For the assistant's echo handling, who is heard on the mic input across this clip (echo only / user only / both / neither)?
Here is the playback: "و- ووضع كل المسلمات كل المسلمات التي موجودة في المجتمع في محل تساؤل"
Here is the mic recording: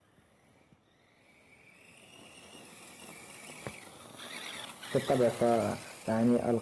user only